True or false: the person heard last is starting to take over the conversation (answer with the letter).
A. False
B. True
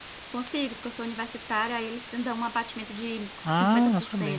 B